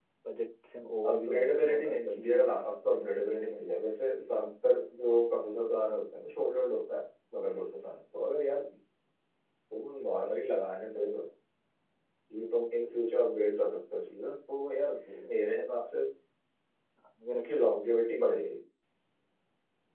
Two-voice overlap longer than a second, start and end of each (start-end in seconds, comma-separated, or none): 1.1-3.0